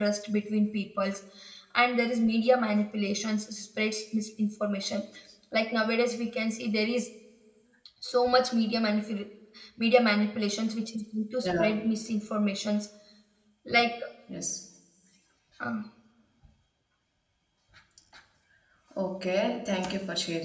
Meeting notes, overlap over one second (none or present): none